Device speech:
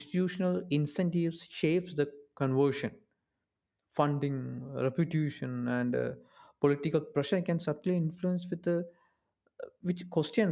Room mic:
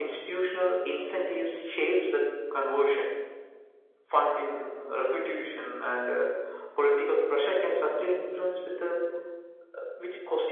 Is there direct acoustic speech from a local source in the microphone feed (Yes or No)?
No